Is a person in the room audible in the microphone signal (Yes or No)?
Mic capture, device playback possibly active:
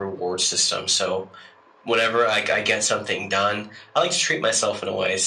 No